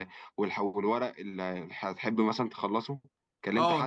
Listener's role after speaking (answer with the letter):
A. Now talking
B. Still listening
A